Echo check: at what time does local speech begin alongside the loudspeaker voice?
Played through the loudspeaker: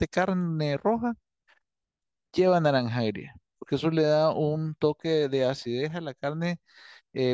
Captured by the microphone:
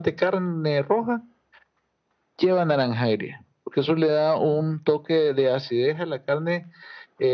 none

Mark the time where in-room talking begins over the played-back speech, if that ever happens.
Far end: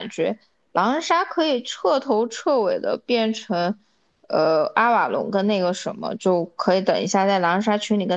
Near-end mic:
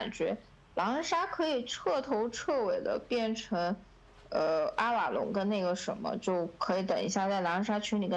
none

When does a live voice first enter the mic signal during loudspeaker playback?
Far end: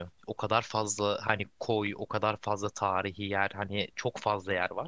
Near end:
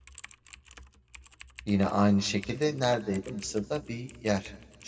2 s

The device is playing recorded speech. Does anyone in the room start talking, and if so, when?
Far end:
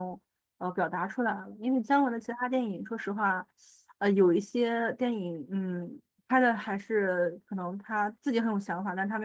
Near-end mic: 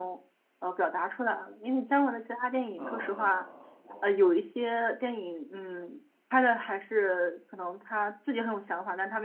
3 s

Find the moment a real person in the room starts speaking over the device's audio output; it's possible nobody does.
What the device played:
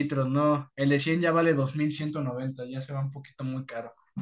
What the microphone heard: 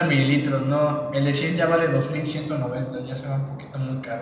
none

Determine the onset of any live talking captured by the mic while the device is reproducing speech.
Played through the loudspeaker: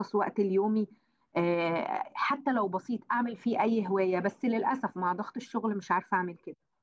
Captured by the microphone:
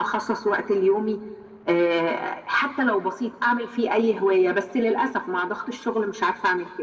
none

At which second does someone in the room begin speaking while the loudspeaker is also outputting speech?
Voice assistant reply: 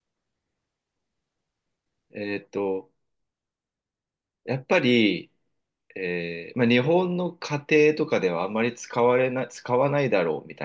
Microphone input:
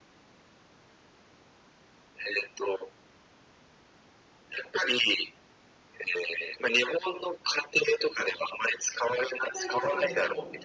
9 s

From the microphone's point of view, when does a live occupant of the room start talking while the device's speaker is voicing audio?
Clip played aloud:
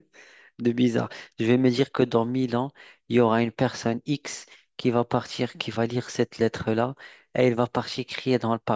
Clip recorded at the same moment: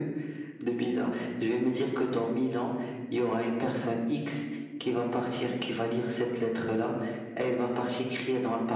none

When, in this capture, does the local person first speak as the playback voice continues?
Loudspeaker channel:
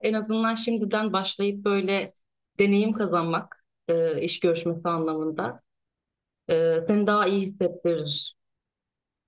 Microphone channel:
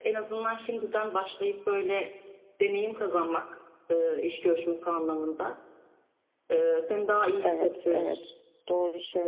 7 s

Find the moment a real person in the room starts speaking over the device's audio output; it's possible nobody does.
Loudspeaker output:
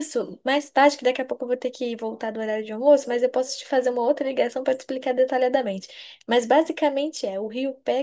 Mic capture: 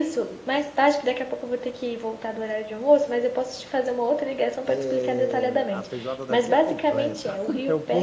5 s

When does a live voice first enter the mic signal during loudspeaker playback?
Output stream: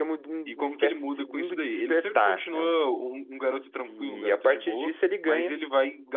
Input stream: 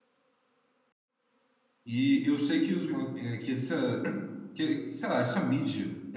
2 s

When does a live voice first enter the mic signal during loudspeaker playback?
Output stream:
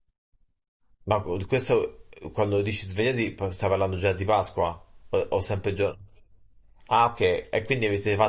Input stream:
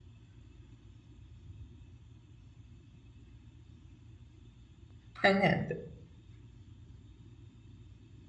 5 s

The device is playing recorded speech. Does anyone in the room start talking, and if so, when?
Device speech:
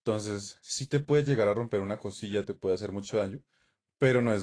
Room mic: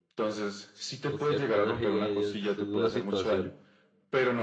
1 s

